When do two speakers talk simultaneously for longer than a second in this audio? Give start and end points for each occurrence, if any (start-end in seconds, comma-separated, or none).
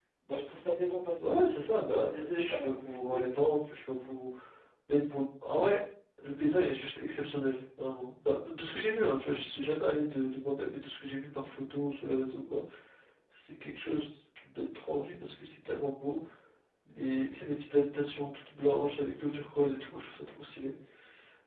1.9-3.8